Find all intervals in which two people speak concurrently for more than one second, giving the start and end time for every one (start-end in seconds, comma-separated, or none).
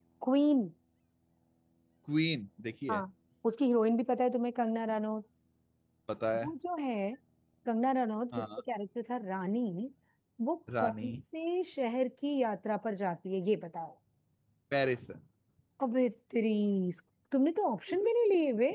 none